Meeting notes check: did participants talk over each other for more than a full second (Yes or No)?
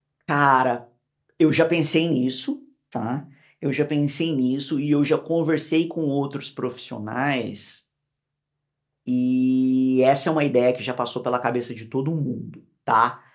No